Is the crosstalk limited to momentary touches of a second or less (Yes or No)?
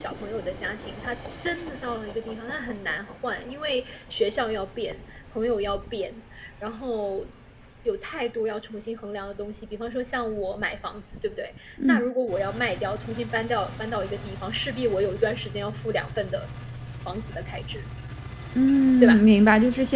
Yes